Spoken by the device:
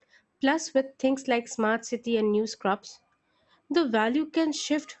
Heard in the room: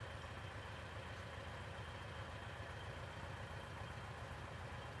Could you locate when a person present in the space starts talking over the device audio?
none

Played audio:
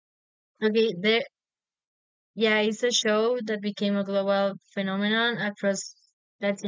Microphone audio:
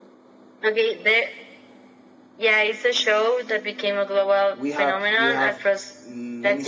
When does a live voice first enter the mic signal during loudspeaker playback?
4.5 s

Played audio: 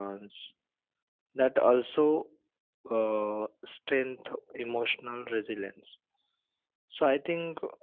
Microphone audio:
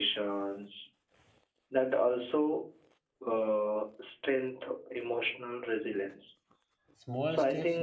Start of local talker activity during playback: 6.9 s

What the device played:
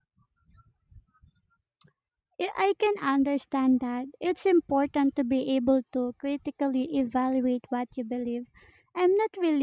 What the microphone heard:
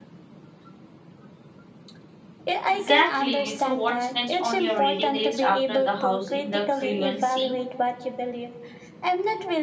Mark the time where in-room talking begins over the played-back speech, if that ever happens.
2.7 s

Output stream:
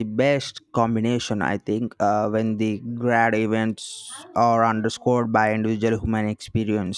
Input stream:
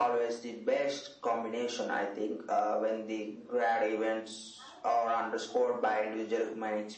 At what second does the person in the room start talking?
none

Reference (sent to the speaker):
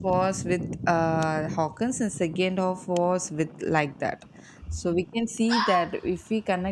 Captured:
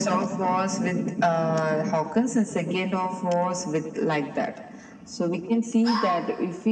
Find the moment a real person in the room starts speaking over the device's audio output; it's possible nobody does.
none

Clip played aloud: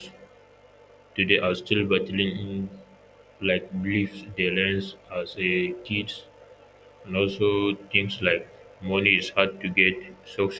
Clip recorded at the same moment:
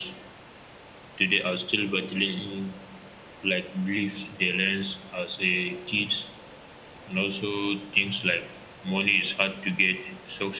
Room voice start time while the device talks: none

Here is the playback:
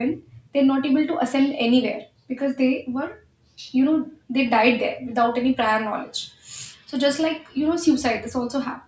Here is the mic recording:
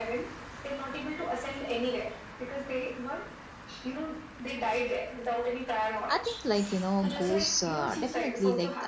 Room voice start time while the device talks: 6.1 s

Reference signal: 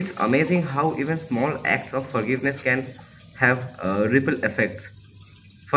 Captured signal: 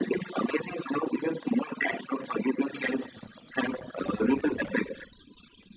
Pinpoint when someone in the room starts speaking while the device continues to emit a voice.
none

